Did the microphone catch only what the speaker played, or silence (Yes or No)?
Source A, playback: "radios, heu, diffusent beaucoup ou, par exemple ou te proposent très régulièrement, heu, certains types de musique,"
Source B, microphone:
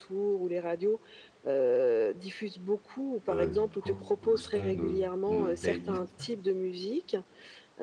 No